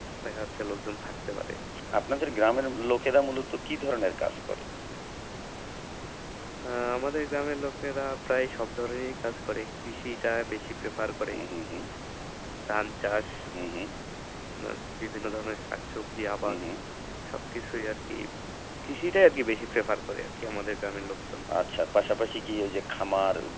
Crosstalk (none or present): none